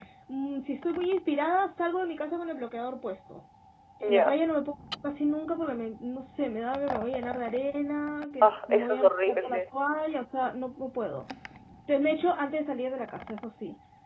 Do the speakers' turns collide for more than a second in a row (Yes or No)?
Yes